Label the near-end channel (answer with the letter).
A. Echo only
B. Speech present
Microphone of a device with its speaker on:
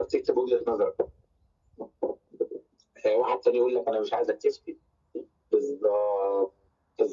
A